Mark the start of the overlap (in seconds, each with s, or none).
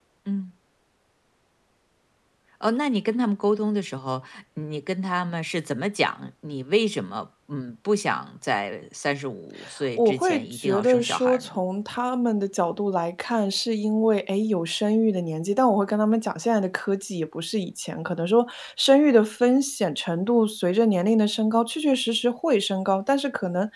10.0 s